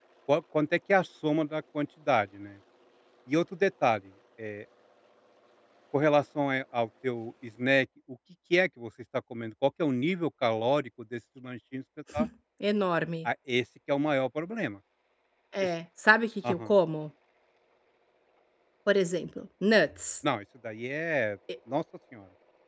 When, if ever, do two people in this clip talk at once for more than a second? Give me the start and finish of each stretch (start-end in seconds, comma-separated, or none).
none